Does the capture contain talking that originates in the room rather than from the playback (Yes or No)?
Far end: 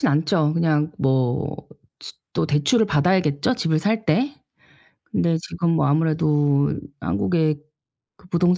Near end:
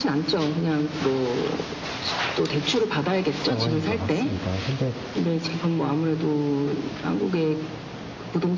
Yes